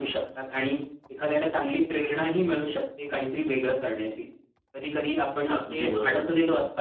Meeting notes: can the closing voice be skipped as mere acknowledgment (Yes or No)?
Yes